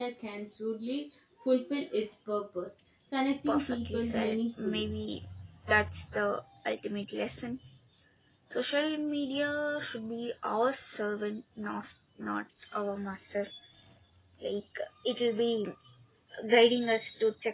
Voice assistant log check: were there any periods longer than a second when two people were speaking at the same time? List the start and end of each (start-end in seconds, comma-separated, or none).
3.5-4.9